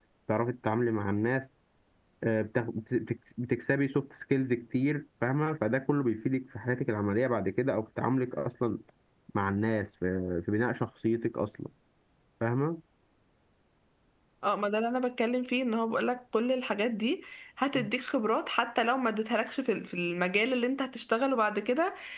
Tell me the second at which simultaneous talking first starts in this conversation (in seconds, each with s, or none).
none